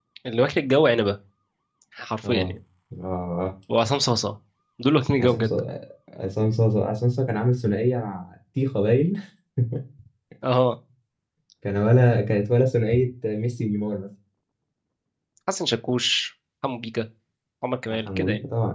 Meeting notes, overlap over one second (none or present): none